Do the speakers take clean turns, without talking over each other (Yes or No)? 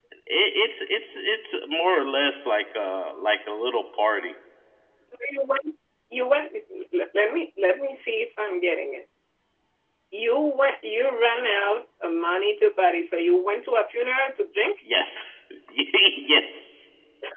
Yes